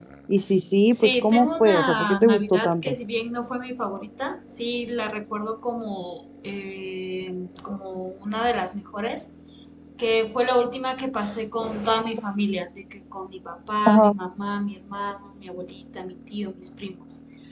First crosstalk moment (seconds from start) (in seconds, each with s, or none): 0.9 s